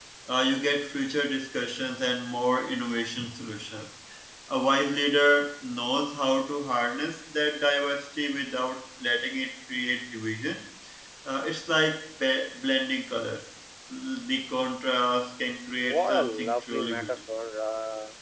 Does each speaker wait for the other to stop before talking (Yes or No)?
No